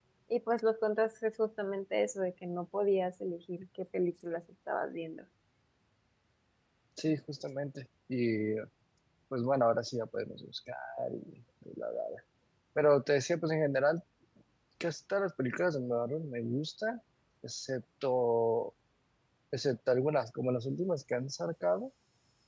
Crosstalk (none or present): none